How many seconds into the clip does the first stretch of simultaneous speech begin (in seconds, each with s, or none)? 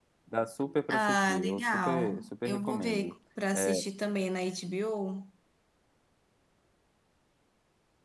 0.9 s